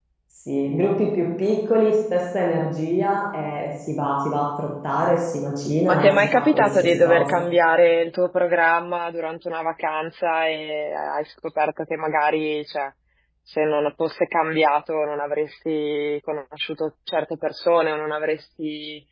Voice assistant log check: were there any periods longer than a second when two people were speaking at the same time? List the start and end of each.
5.9-7.4

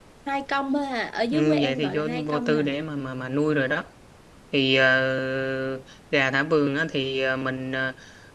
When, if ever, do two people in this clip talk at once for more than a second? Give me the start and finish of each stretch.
1.3-2.7

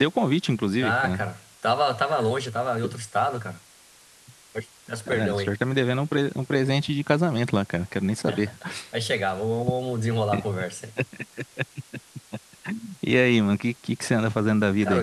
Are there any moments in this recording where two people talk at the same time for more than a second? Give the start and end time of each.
none

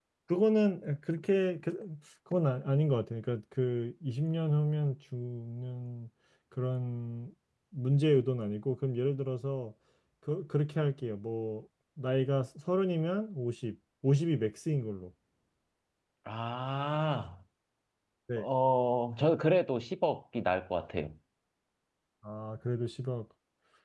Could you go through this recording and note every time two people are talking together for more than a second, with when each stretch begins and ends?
none

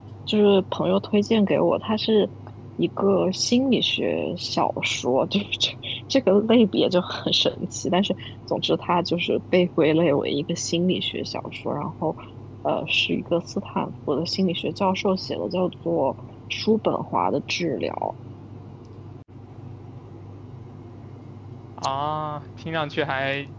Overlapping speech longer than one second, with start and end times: none

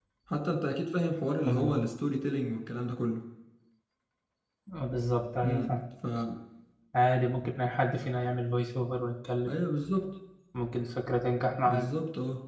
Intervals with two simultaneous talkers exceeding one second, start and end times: none

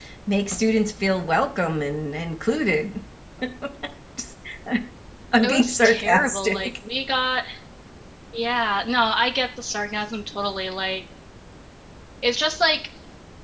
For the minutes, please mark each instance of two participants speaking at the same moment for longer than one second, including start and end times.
5.4-6.7

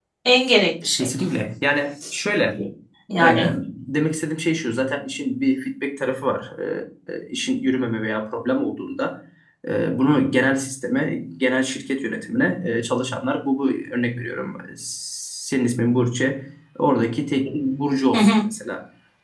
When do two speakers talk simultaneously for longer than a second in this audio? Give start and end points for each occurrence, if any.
none

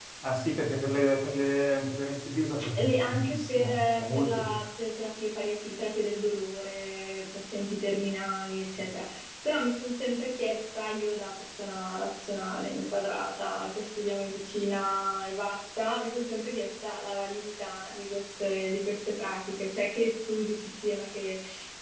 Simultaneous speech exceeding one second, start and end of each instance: 2.8-4.6

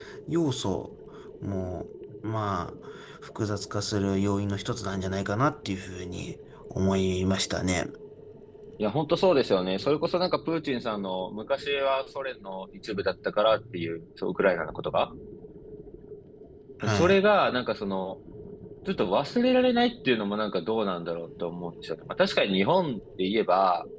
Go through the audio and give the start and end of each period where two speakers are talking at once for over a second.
none

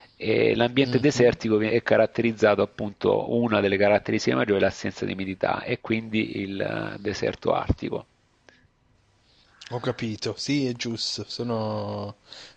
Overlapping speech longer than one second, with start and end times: none

